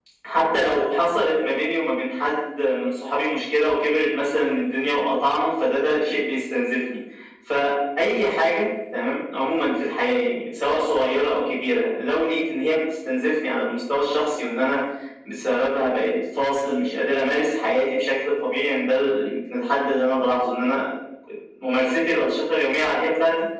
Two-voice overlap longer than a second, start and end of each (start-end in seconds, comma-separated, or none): none